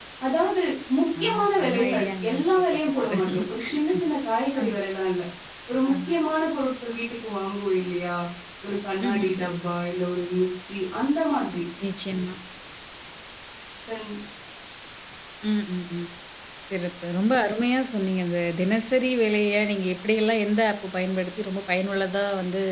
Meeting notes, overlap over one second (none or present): present